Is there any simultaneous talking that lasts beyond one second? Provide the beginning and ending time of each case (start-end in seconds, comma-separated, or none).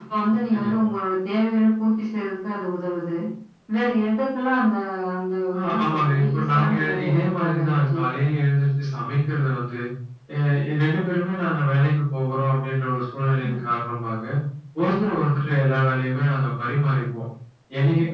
5.6-8.0